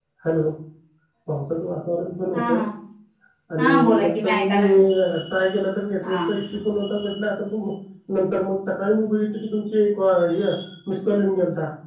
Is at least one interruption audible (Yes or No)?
Yes